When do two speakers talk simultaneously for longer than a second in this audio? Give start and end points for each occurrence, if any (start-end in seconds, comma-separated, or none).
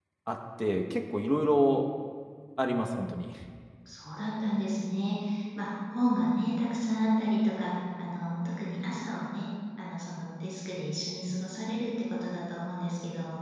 none